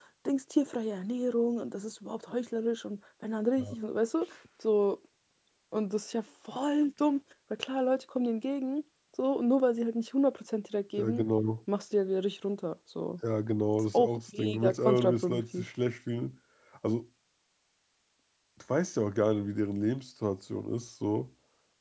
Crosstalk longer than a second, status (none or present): present